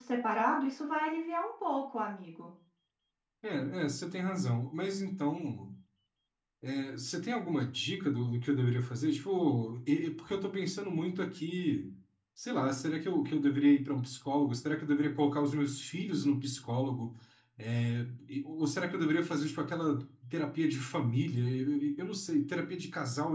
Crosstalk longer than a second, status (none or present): none